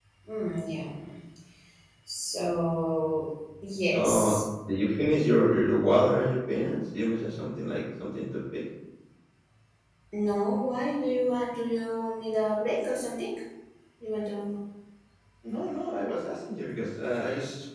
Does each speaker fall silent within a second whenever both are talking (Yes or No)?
Yes